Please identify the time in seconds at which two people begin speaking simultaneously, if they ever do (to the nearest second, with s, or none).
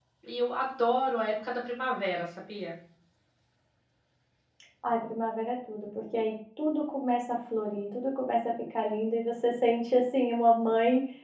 none